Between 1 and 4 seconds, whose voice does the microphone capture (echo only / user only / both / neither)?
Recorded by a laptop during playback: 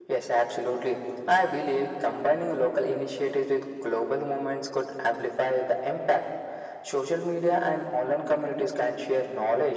echo only